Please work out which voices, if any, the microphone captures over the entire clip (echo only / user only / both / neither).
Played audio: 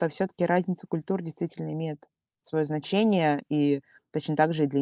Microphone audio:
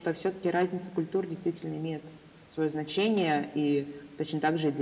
echo only